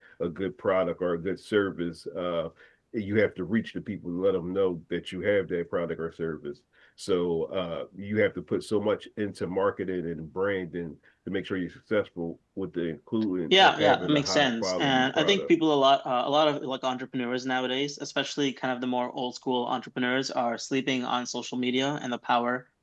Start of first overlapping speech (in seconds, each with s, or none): 13.5 s